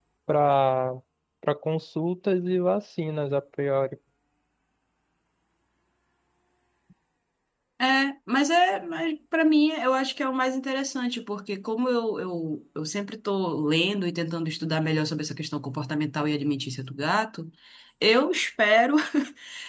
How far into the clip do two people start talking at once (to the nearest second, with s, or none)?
none